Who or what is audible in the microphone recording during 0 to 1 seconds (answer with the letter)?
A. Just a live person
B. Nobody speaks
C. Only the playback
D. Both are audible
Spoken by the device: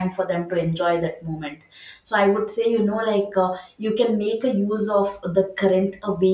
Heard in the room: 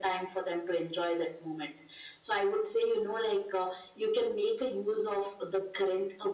C